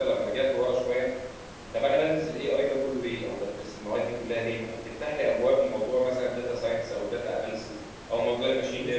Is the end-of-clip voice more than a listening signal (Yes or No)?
No